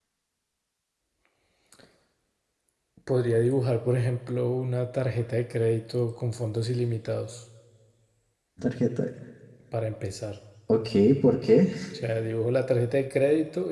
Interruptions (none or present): none